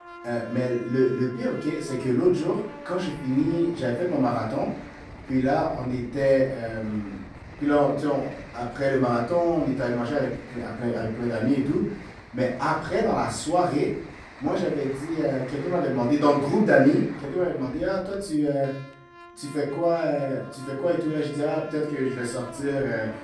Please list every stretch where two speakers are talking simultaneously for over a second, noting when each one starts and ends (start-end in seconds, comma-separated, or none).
none